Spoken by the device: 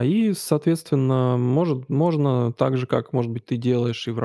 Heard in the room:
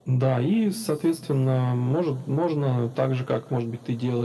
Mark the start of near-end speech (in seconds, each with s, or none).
none